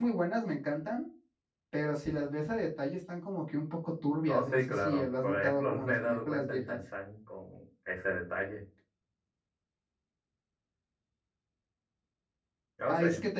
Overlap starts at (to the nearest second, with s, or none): 4 s